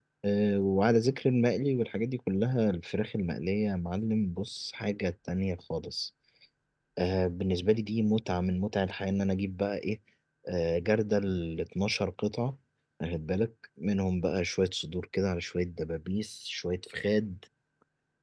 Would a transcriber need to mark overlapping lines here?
No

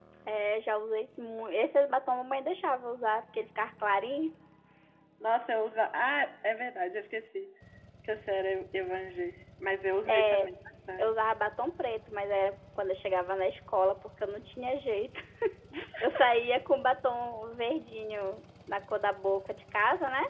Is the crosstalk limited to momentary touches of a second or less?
Yes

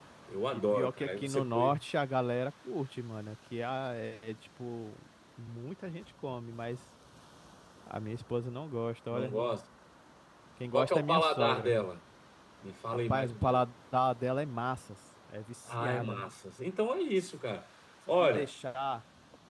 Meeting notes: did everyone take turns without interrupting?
No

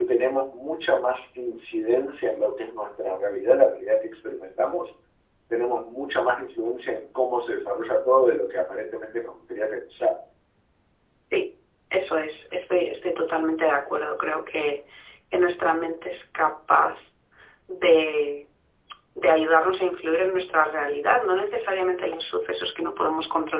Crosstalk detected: No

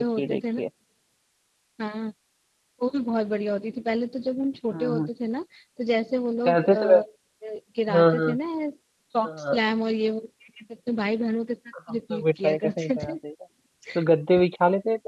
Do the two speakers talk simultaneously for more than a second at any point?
Yes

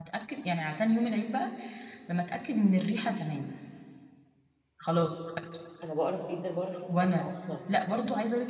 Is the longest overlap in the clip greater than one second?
No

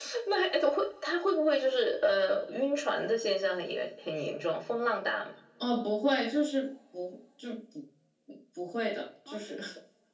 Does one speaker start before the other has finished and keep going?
No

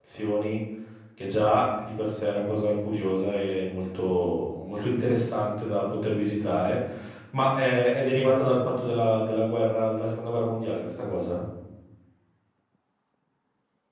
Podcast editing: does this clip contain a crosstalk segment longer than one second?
No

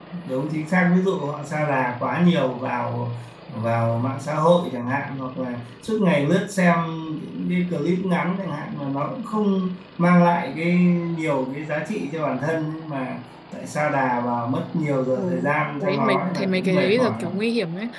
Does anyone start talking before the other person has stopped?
Yes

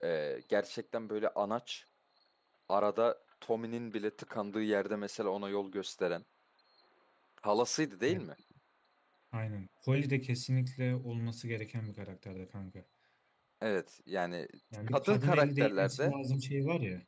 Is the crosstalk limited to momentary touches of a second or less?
No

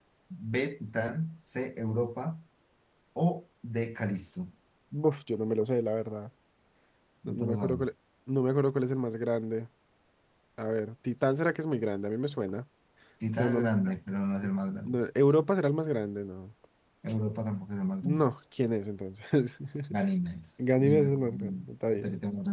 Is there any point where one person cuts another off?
Yes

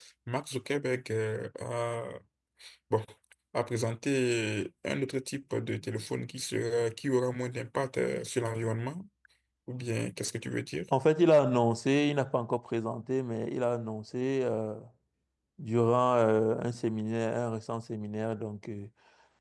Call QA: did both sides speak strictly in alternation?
Yes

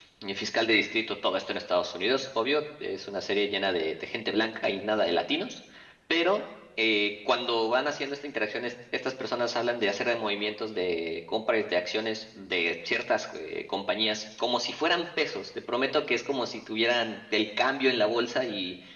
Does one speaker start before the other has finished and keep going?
No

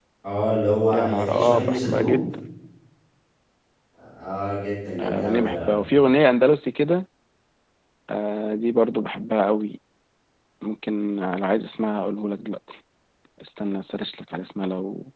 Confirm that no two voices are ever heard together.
No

